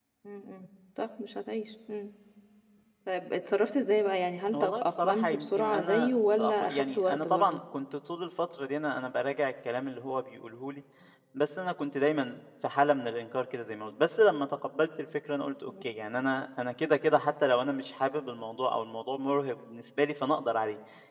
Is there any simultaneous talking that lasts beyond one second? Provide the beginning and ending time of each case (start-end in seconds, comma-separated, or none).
4.5-7.6